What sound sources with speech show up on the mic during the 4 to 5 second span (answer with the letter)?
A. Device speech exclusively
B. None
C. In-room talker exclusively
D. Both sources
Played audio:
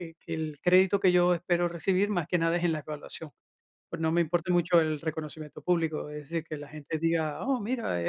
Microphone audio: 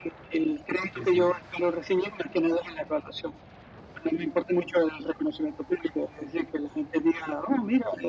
A